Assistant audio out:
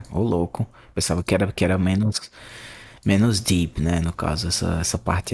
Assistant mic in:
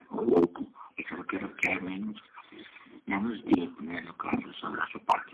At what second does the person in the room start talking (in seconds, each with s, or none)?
none